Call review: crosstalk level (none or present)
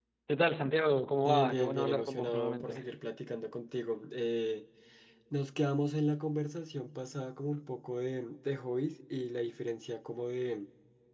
present